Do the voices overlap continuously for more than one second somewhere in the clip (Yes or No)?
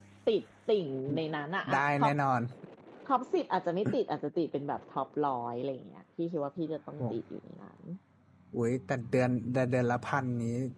No